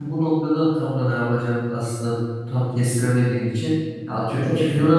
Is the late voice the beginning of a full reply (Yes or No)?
No